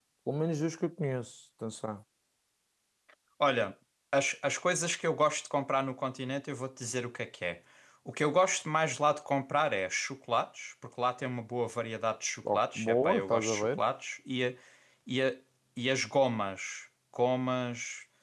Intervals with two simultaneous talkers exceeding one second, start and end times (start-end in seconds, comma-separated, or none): 12.5-13.8